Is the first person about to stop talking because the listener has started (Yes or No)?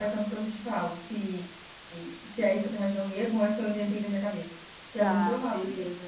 Yes